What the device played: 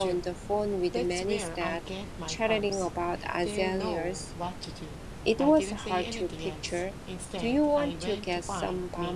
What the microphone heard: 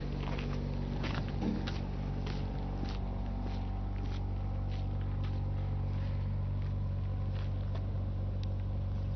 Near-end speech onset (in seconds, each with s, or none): none